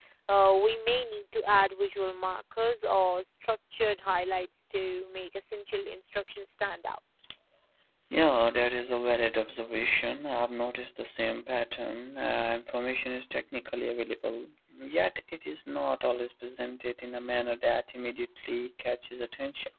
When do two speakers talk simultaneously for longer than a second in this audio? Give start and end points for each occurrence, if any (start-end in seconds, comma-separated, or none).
none